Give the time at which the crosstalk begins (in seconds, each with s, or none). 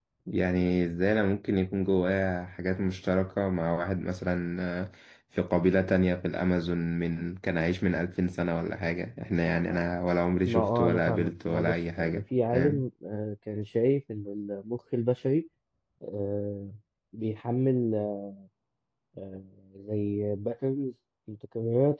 10.4 s